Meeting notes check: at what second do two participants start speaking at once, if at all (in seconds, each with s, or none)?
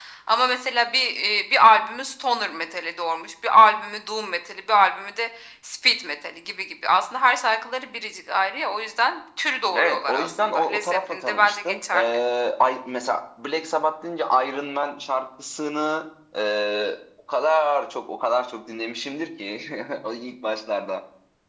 9.7 s